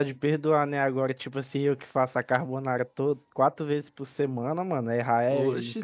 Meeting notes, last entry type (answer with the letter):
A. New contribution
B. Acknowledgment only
A